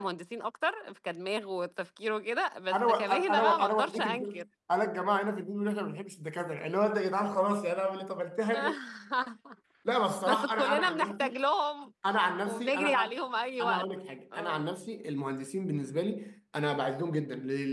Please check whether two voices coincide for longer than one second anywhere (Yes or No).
Yes